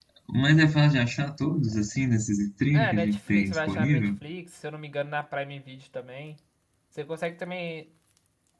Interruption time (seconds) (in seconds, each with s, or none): 2.7 s